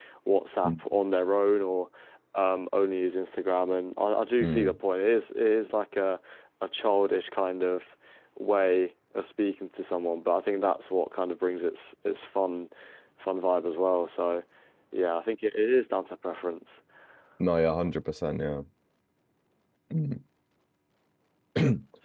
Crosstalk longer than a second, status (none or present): none